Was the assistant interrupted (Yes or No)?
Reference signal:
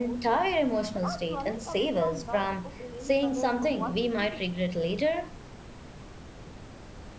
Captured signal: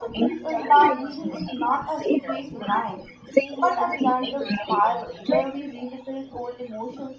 Yes